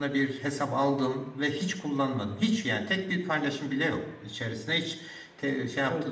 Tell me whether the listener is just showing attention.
Yes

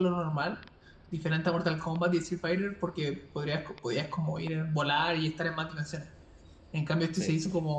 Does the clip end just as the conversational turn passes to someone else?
No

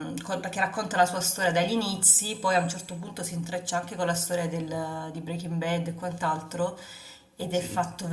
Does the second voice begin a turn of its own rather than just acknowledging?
No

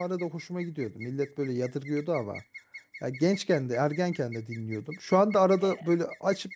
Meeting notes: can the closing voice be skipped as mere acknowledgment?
Yes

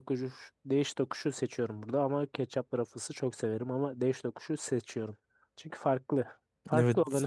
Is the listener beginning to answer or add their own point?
Yes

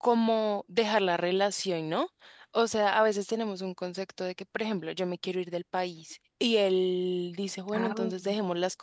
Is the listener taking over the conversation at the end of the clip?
No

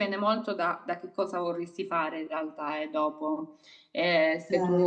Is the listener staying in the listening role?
Yes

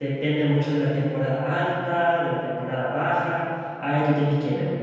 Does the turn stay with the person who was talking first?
Yes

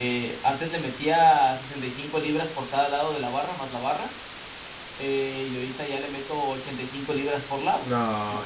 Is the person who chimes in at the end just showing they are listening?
No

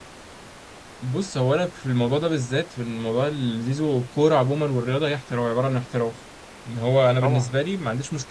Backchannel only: Yes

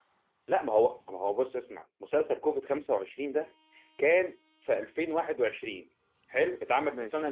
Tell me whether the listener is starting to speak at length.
No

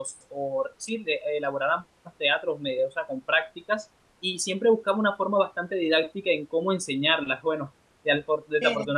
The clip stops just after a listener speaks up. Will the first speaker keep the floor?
Yes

